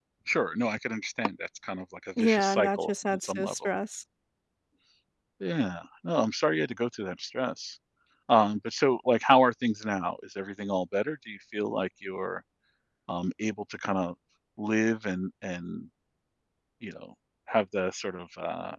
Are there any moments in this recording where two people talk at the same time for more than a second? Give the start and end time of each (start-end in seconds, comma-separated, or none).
2.2-3.7